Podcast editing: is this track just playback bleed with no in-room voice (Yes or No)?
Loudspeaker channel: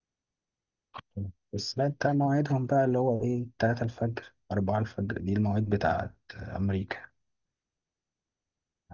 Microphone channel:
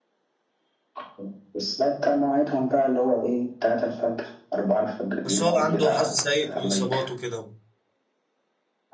No